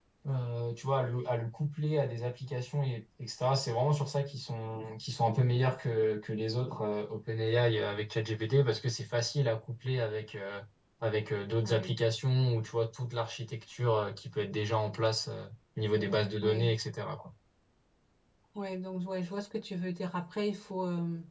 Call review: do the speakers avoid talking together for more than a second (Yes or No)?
Yes